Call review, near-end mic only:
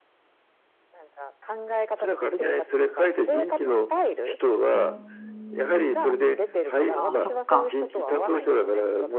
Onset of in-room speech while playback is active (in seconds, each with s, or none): 4.7 s